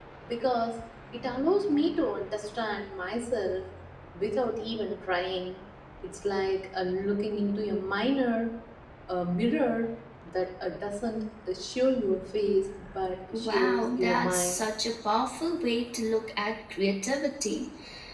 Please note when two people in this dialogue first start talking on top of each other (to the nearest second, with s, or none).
13 s